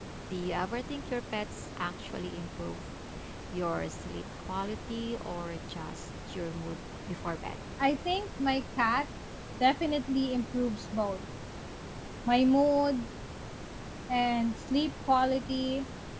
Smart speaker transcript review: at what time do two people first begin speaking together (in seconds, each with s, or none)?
none